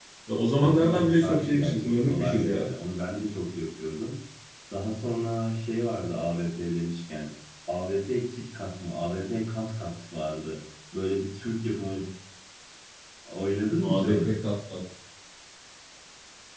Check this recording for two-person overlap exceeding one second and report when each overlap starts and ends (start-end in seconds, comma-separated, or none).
0.6-2.7